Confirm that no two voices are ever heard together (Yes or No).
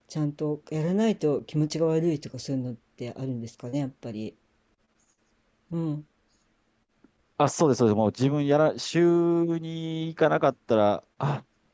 Yes